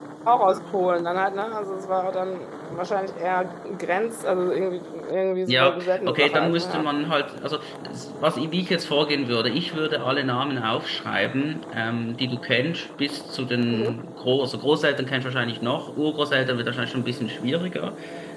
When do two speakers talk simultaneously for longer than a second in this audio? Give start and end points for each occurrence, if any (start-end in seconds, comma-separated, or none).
5.5-6.9